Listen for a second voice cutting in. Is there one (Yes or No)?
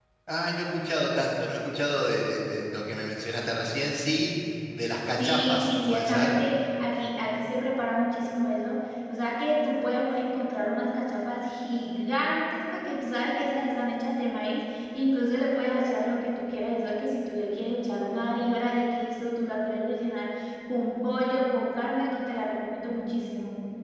Yes